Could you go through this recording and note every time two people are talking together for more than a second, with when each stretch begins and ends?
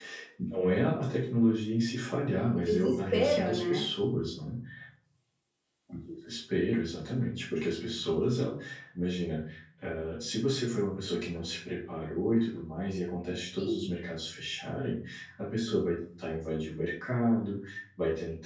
2.5-3.8

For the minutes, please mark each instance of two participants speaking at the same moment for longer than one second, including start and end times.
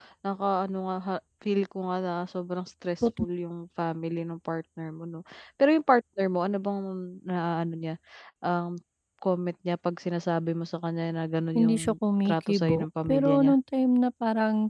12.2-13.5

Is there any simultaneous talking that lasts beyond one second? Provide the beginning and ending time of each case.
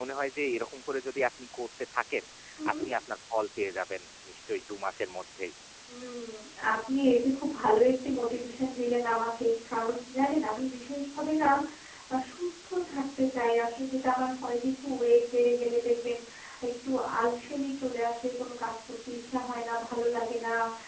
none

